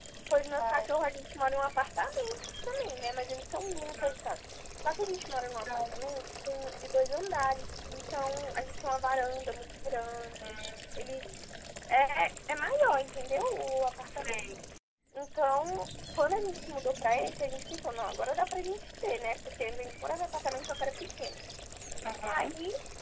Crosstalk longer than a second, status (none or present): none